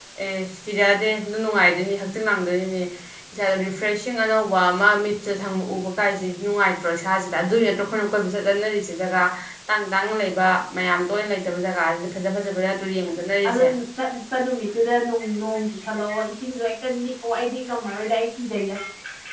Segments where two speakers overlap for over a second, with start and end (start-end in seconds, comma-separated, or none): none